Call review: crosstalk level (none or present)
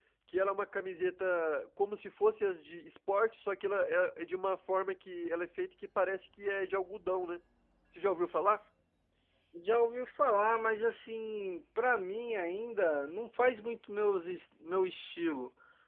none